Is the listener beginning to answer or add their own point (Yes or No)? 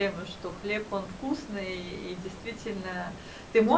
No